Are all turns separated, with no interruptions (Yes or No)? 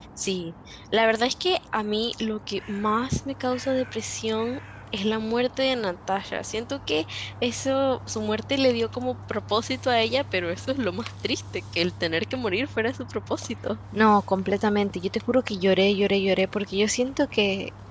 Yes